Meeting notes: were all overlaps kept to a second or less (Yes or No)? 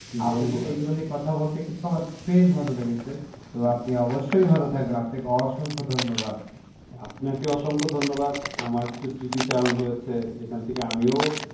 Yes